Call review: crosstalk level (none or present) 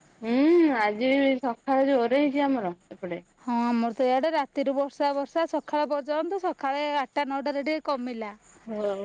none